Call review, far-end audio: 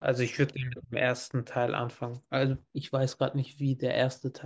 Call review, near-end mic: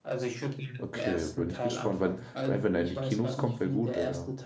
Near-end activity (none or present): present